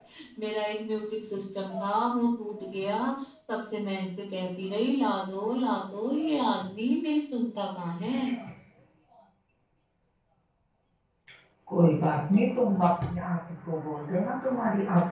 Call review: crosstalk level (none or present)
none